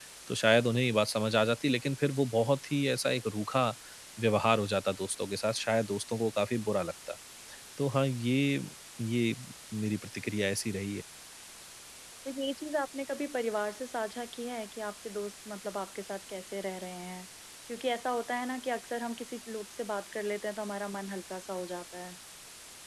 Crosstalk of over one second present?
No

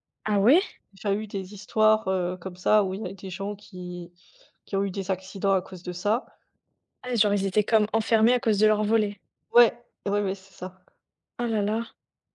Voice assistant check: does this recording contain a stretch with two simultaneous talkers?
No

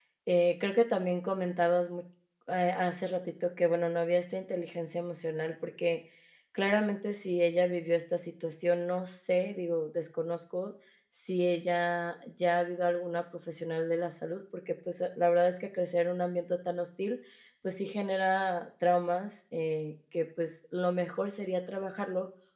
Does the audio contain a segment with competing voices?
No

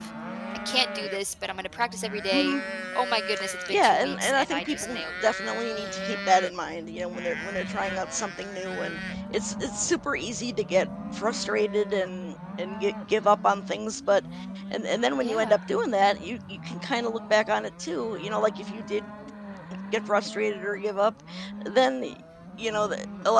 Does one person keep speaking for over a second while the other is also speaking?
Yes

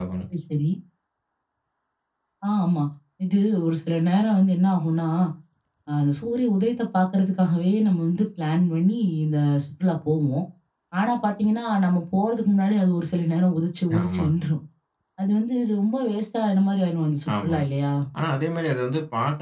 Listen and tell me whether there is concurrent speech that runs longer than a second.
No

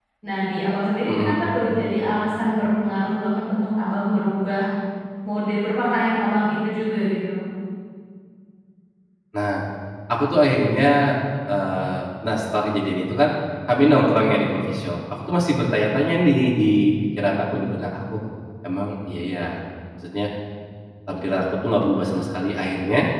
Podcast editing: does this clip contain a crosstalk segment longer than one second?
No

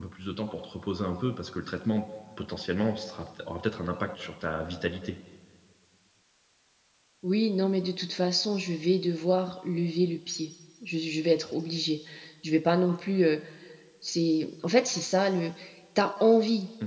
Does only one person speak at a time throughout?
Yes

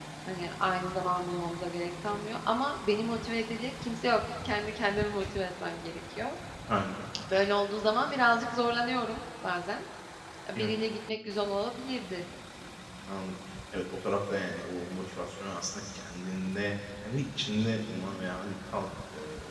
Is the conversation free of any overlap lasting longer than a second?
Yes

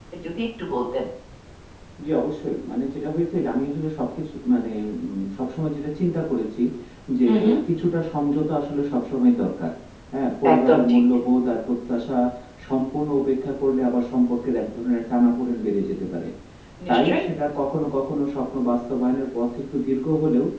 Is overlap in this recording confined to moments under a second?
Yes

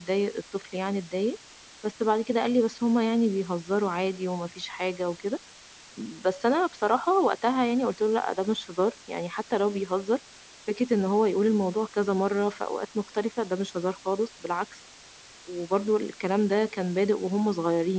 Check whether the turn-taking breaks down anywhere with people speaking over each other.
No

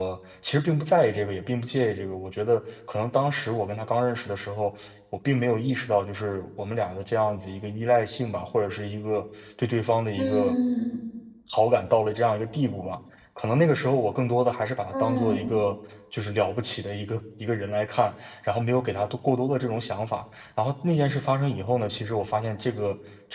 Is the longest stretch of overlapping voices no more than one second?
Yes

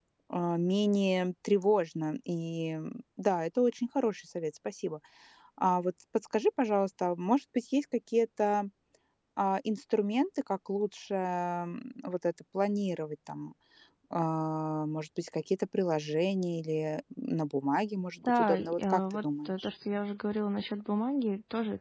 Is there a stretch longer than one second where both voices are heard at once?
Yes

